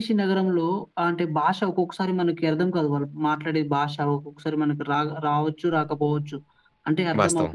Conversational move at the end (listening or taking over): listening